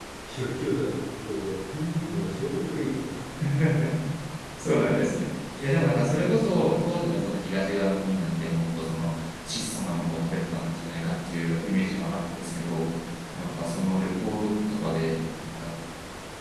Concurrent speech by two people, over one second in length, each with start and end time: none

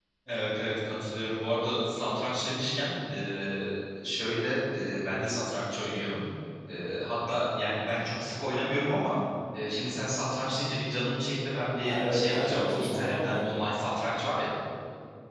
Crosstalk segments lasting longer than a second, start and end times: 11.8-13.7

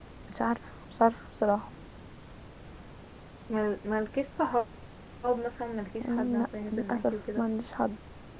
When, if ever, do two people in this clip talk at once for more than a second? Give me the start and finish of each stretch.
6.1-7.5

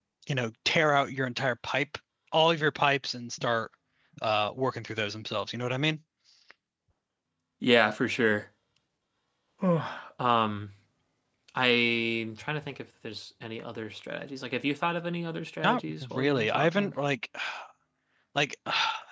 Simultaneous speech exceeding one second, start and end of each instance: 15.6-16.9

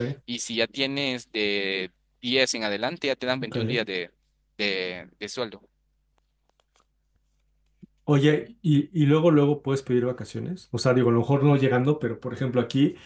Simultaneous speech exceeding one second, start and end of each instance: none

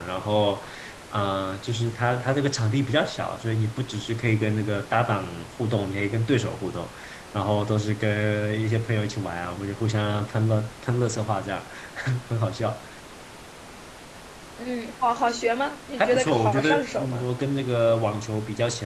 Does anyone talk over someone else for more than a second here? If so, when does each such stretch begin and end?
16.0-17.2

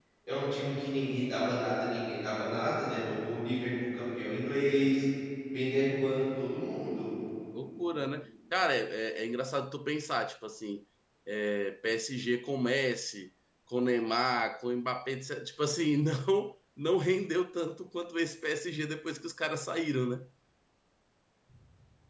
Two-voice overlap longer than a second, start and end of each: none

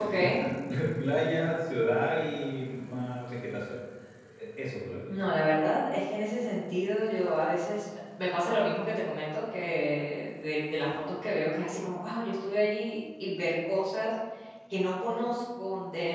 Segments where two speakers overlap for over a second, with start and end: none

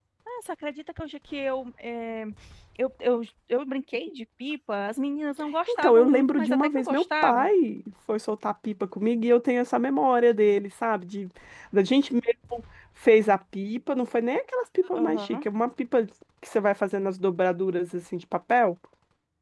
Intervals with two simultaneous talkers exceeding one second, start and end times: 5.7-7.5

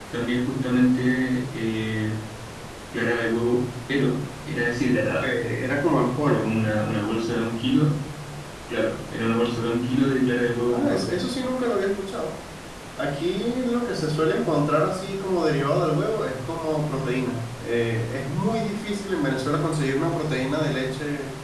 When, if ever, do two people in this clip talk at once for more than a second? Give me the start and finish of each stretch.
none

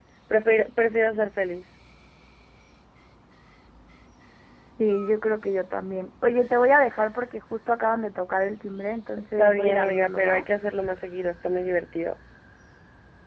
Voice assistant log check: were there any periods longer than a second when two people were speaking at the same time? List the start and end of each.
9.2-10.4

